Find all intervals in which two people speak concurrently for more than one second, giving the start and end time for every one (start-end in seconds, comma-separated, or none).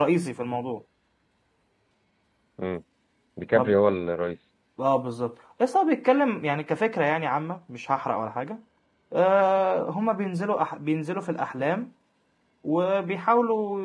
none